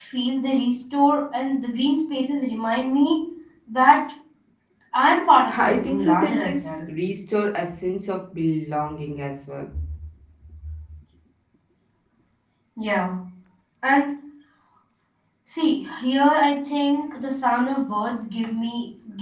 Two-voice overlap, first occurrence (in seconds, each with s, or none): 5.6 s